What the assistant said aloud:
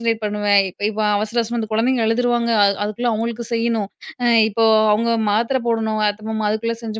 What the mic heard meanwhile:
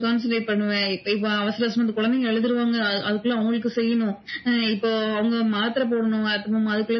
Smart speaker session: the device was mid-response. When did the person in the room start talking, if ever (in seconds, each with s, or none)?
none